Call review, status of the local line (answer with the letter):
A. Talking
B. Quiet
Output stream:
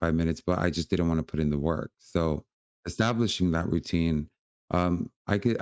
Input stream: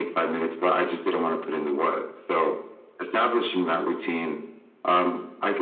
B